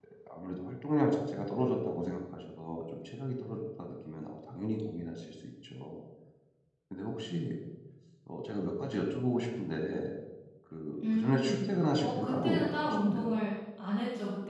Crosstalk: present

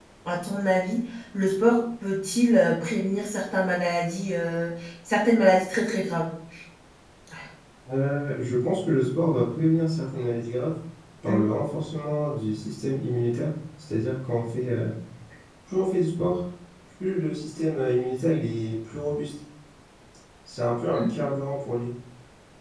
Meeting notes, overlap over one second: none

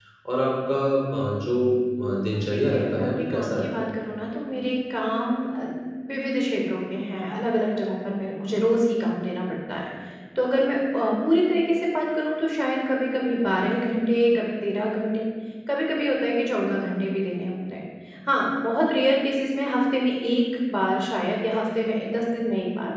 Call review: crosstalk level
present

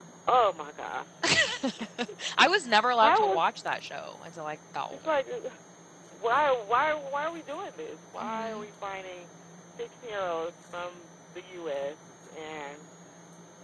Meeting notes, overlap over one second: none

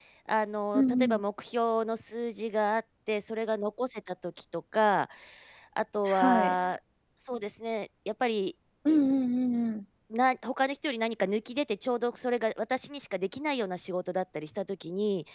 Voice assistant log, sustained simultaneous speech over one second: none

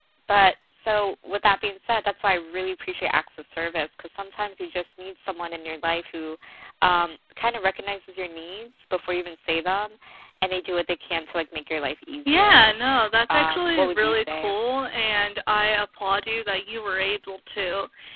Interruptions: present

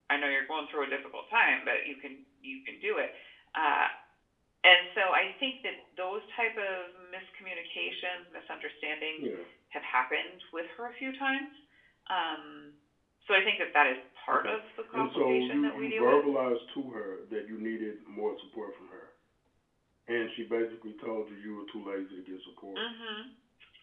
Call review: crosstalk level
present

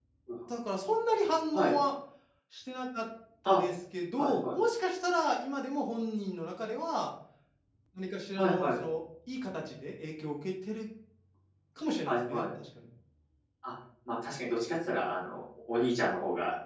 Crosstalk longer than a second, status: none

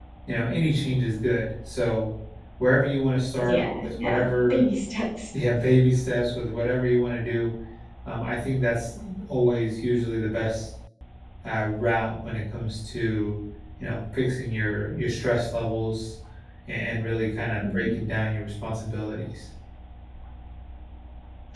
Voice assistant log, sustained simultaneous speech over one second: present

